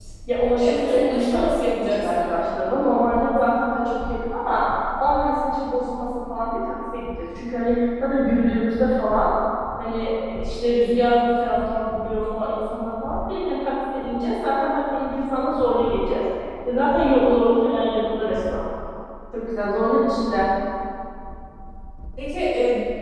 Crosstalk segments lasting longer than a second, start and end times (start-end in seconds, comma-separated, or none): 0.6-2.2